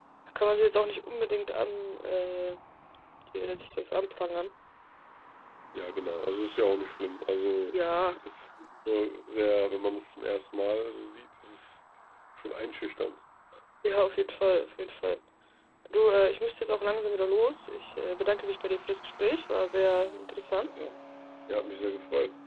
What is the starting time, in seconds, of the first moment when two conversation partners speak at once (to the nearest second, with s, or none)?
none